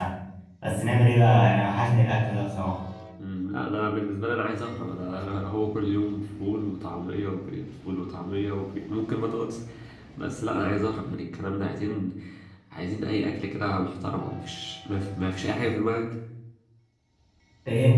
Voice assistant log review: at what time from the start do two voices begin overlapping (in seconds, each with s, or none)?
none